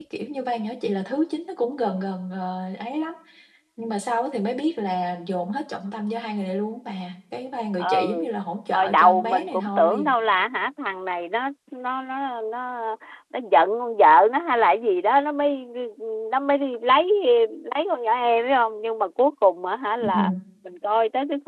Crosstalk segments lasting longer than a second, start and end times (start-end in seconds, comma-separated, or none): 8.7-10.1